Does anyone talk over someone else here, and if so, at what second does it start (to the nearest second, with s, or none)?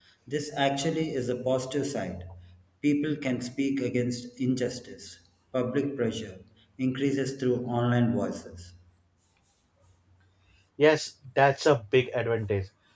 none